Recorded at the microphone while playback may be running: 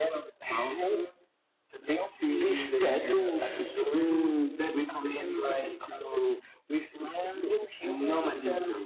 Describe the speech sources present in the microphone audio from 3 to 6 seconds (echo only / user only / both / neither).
both